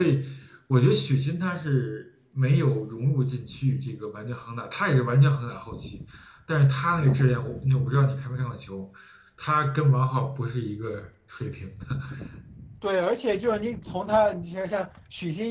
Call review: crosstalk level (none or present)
none